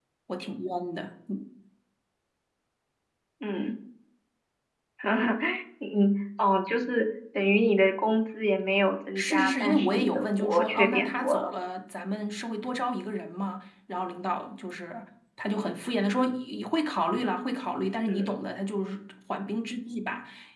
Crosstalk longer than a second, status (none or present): present